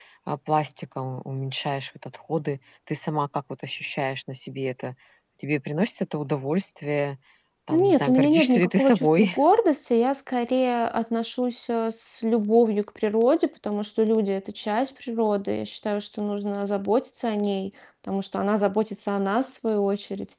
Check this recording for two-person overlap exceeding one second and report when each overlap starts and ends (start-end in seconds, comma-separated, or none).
7.7-9.4